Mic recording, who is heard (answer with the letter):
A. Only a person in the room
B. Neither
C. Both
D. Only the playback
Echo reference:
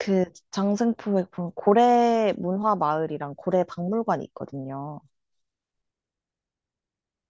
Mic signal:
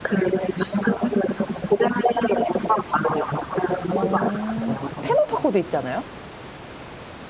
C